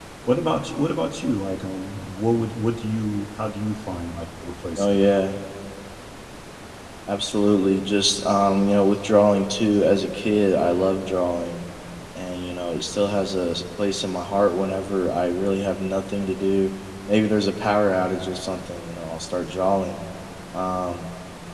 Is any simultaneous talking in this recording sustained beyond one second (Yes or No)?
No